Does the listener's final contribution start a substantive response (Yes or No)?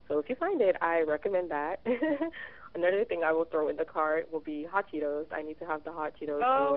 Yes